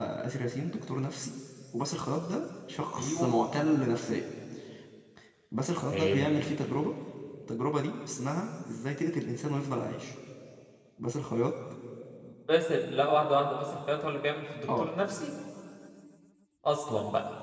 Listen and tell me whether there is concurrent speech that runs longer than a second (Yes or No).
No